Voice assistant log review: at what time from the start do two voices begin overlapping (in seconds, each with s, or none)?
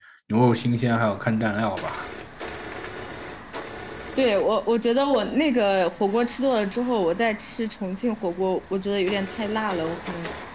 none